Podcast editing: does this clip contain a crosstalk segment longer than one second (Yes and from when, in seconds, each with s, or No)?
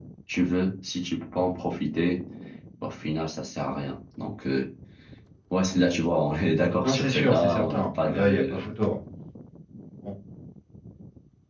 Yes, from 6.8 s